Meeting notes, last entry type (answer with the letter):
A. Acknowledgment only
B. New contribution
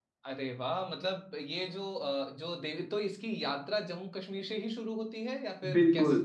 B